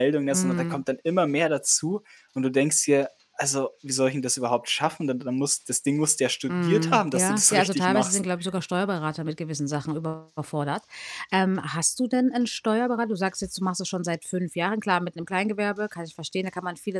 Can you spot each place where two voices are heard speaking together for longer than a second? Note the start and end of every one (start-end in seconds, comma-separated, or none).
6.5-8.2